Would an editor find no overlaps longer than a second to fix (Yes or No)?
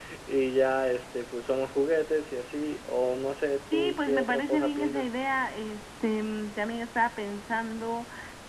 No